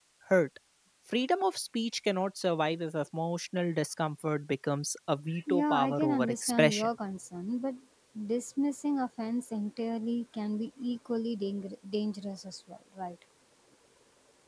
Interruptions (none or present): present